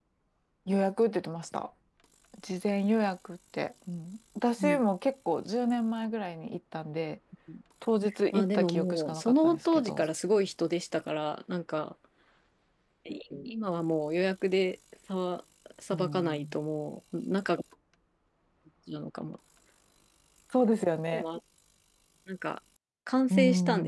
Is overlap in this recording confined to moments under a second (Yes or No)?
No